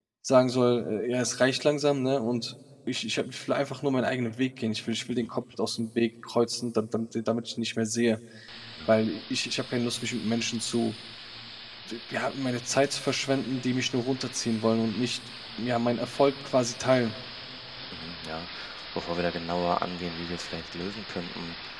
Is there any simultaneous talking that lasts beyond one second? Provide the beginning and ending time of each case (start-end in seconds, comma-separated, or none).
none